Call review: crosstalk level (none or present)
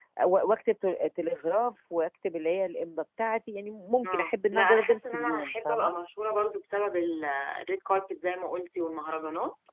present